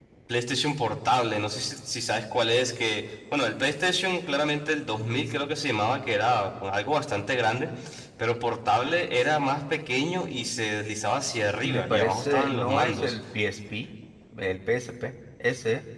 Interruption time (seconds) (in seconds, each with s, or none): 11.6 s